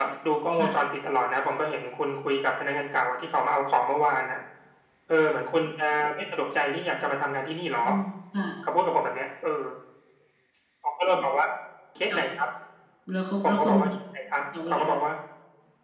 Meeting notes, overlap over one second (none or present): none